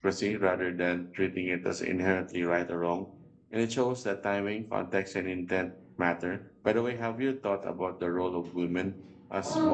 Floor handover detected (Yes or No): Yes